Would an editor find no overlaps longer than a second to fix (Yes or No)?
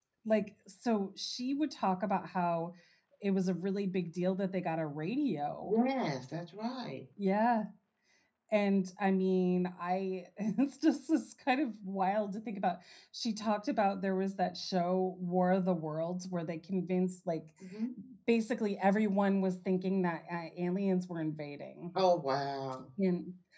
Yes